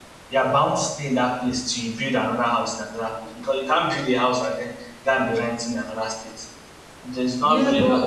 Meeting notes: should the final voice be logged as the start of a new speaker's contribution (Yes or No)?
Yes